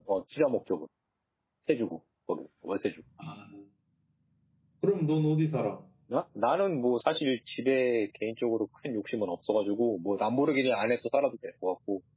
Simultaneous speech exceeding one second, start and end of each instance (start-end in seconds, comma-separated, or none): none